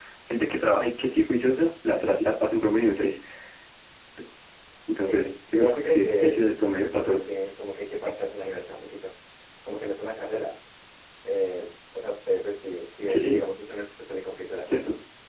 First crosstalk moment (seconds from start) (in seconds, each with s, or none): 5.1 s